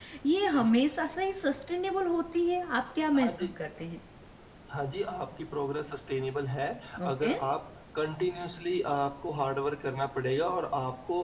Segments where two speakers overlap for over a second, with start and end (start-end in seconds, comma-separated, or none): none